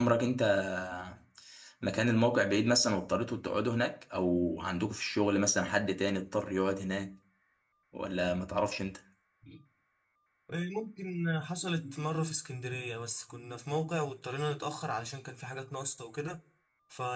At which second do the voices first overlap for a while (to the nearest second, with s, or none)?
none